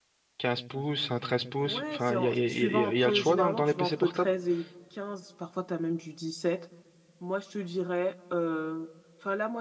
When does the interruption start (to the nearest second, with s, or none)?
2 s